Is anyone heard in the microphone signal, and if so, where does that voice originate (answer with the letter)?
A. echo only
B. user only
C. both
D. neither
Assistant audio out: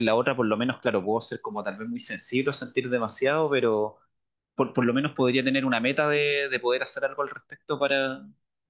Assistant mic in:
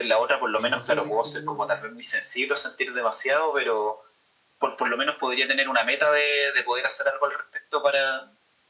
C